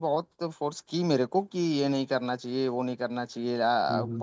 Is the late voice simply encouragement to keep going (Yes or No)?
Yes